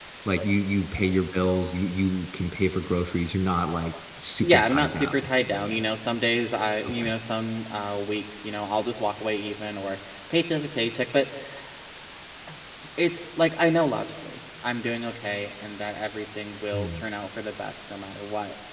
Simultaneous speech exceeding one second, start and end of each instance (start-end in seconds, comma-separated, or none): 4.4-5.8